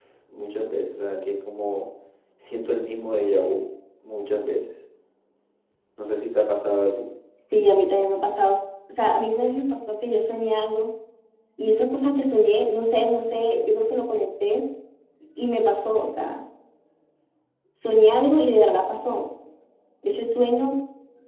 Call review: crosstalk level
none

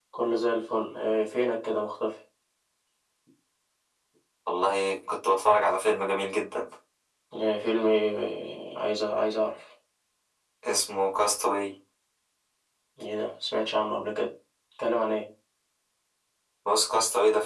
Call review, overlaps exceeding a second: none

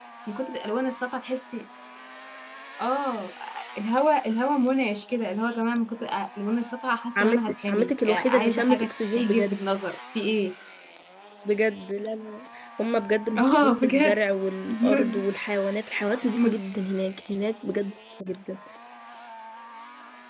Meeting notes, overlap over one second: present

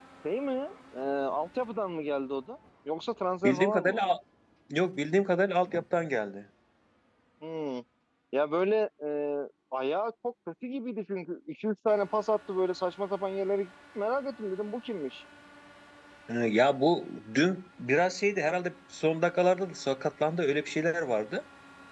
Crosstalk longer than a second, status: none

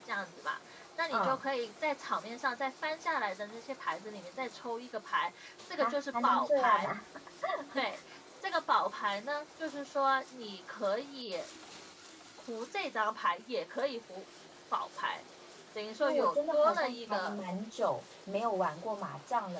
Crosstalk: present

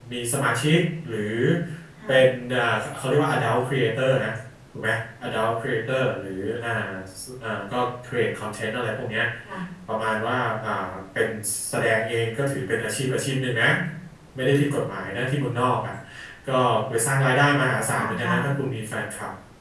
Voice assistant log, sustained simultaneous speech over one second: none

